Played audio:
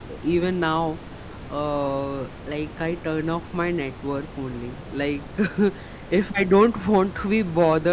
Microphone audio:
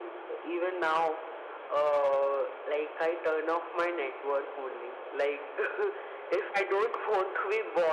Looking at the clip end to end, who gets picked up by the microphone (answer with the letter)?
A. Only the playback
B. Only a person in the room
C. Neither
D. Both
A